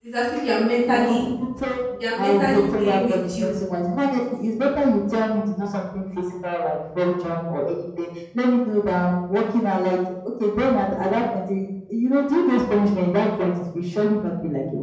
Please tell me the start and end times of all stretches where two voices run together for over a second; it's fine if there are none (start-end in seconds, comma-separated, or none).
2.1-3.5